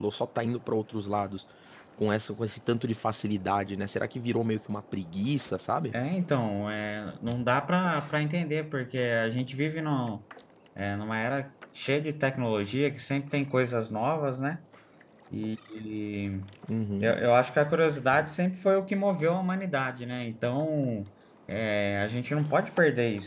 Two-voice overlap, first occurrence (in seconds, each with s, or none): none